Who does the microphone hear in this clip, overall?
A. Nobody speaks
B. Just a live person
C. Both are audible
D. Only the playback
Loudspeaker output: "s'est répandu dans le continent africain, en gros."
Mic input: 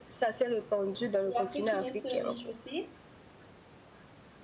C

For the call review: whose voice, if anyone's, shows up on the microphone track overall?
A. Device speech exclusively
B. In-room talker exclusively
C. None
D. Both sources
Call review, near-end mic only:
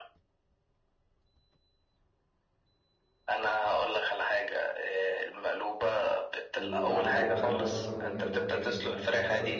D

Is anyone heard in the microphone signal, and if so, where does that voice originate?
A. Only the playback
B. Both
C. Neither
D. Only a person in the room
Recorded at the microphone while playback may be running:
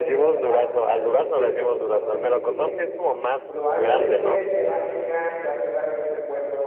B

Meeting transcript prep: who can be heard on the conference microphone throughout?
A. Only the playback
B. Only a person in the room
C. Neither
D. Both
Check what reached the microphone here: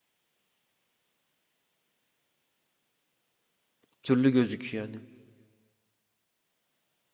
B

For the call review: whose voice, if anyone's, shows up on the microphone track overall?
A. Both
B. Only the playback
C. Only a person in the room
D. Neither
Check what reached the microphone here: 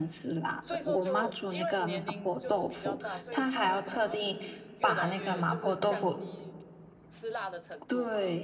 A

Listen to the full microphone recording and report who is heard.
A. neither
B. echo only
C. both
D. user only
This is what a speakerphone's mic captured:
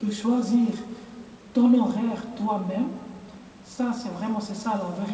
D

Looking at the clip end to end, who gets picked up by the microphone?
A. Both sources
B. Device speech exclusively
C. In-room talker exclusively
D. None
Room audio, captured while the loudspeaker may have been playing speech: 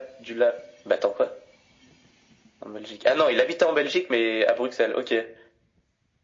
B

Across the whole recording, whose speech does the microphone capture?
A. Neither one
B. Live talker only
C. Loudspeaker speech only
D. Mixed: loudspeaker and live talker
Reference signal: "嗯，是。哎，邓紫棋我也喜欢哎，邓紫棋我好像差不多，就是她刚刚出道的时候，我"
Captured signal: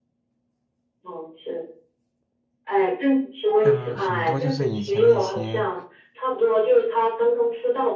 D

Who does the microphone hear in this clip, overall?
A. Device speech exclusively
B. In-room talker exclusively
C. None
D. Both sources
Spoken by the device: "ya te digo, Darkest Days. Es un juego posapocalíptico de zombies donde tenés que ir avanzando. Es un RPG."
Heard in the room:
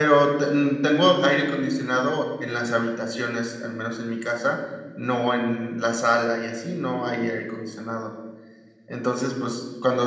B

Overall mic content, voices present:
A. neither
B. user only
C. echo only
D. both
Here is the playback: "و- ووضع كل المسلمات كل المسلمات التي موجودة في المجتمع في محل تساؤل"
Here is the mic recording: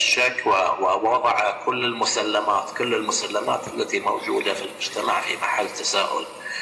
C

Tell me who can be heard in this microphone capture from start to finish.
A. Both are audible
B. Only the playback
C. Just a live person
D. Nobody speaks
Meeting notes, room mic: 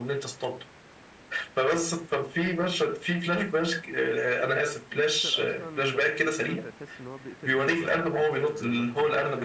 A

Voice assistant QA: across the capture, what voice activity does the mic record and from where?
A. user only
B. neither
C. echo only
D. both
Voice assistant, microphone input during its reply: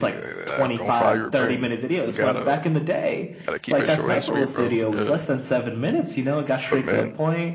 D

